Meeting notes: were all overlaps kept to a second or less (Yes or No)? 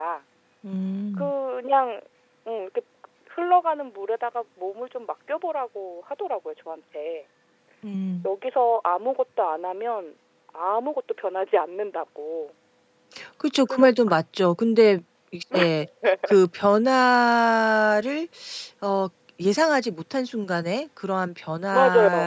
Yes